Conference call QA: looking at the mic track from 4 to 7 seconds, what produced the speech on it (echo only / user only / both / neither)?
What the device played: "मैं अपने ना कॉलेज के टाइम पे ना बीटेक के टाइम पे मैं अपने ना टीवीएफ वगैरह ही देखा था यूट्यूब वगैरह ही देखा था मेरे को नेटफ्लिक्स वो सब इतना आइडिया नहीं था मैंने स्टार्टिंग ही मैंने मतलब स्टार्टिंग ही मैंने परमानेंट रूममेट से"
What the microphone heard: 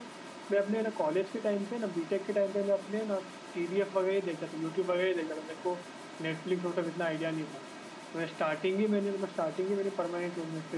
echo only